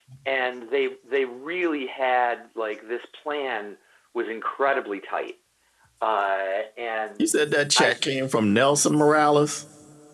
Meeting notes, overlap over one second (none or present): none